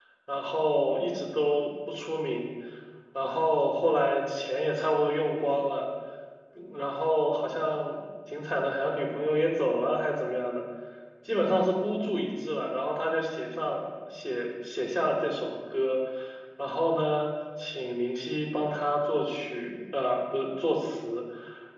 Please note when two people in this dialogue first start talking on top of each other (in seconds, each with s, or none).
none